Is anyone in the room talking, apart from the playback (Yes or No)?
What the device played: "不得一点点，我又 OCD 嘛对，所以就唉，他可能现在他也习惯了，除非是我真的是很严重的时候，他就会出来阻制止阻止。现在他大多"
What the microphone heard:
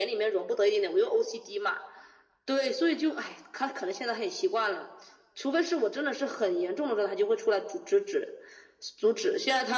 No